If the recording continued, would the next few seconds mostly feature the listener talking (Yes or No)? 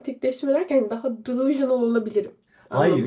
Yes